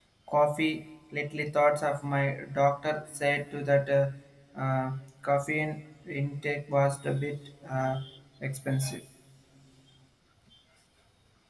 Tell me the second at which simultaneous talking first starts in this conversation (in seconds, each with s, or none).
none